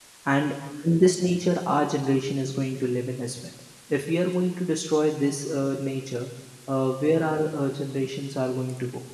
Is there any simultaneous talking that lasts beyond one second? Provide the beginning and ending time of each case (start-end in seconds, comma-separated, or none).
none